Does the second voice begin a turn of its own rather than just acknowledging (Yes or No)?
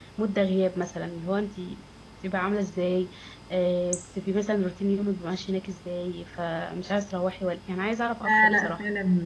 Yes